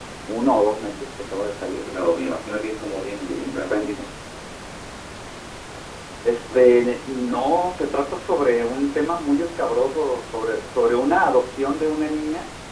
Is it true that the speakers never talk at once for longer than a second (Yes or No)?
Yes